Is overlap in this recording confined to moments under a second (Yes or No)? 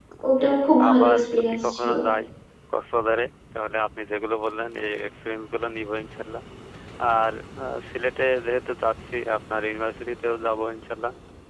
No